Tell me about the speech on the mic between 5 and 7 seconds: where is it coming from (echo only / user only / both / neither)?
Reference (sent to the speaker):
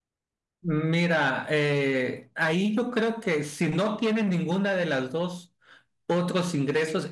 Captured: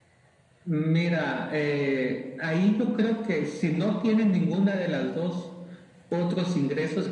echo only